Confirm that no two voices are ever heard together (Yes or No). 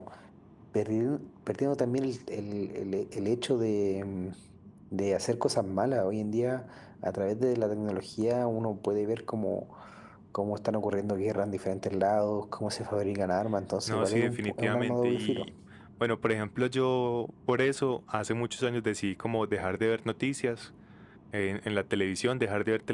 No